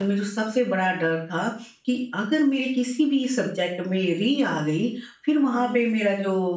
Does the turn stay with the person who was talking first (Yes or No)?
Yes